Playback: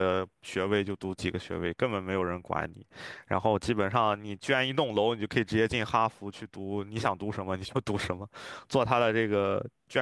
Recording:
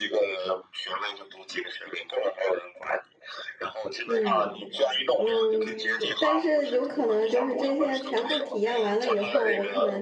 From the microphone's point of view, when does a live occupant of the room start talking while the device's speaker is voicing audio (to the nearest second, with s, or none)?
4 s